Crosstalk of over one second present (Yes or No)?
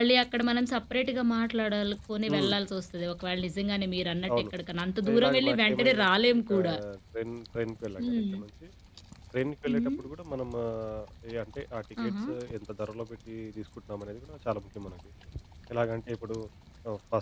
Yes